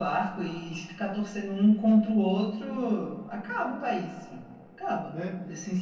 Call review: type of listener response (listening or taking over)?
taking over